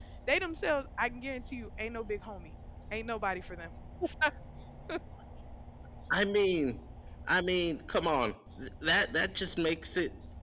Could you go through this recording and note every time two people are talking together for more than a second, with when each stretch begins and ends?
none

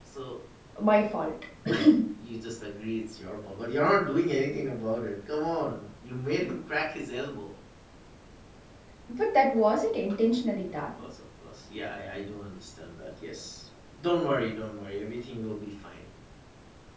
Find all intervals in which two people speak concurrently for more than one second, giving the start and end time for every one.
none

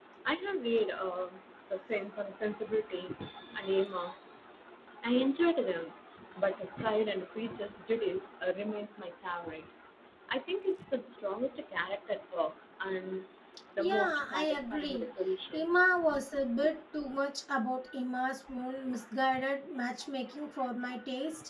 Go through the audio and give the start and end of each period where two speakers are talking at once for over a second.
13.8-15.1

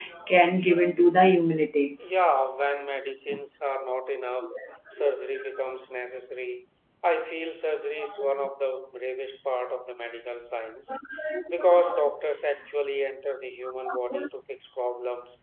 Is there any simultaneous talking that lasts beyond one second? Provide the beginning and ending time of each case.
none

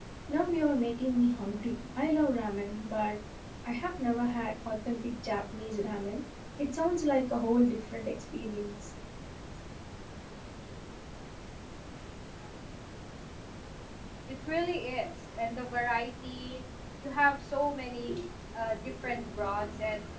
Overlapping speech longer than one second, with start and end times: none

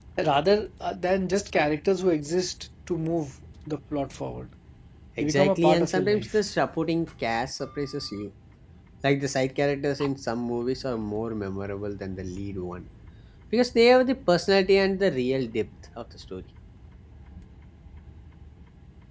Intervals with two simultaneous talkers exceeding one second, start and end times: 5.2-6.4

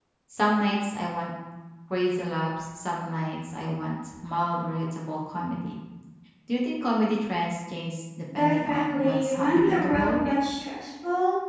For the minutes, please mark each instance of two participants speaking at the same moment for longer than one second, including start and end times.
8.3-10.2

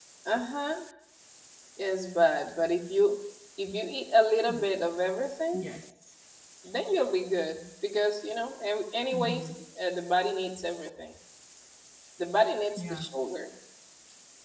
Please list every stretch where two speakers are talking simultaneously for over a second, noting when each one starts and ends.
none

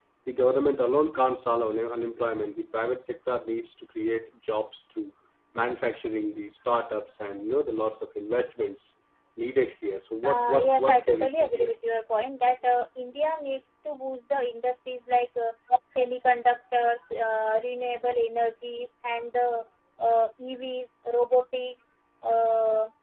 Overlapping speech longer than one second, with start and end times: 10.2-11.7

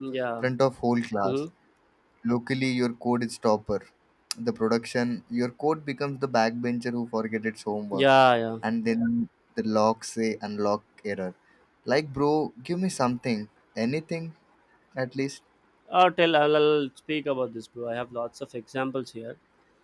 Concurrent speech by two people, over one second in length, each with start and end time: none

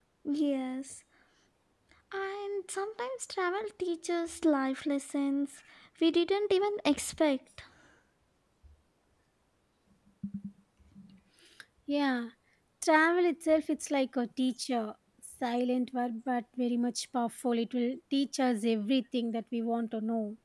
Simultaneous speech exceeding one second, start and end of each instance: none

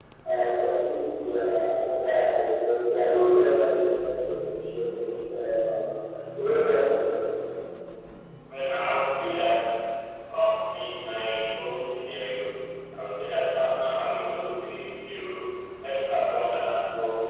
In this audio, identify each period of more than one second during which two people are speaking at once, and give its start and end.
none

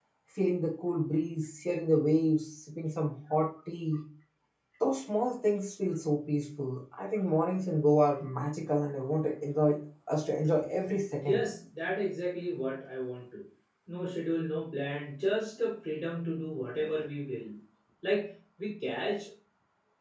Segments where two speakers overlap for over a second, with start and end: none

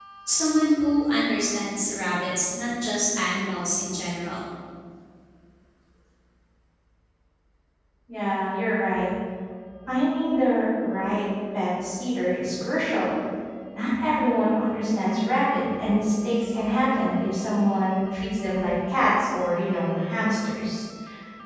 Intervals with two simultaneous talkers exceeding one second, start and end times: none

